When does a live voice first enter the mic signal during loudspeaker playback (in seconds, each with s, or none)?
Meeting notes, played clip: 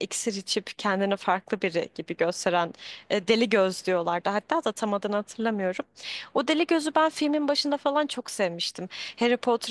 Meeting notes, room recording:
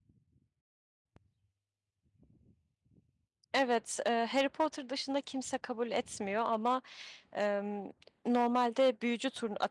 3.5 s